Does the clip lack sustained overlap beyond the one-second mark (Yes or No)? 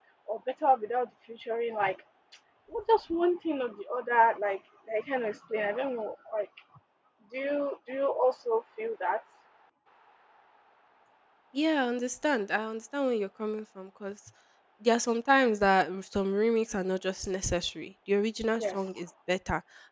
Yes